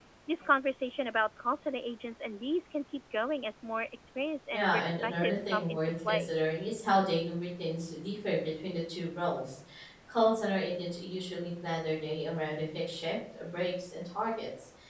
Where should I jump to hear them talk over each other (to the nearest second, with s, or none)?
5 s